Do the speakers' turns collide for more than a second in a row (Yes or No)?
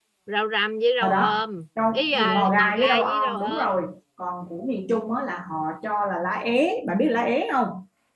Yes